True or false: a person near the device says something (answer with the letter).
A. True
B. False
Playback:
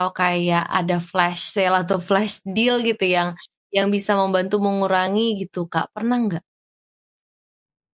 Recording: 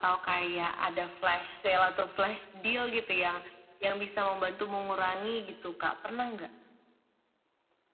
B